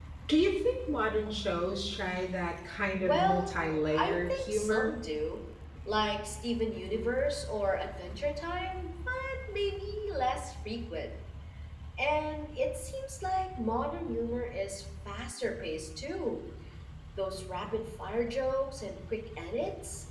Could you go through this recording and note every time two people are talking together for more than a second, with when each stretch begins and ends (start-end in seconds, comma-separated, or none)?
3.0-5.0